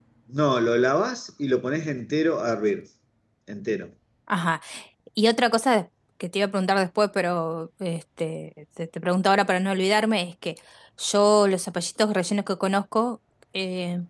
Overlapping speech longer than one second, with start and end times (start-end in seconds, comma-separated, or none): none